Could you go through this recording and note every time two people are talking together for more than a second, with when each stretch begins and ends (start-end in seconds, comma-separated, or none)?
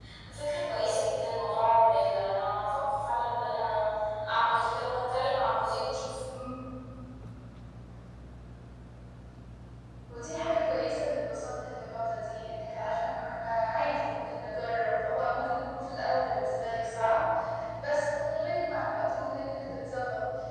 none